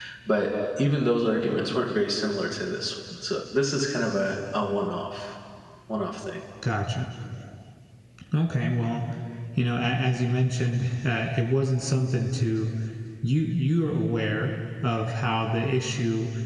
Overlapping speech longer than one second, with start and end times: none

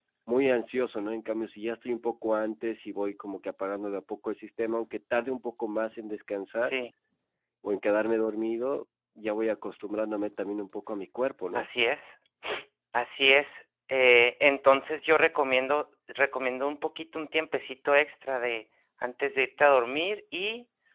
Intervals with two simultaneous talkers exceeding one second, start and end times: none

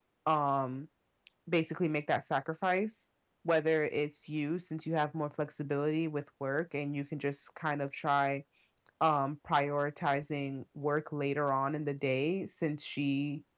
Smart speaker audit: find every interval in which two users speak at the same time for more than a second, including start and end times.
none

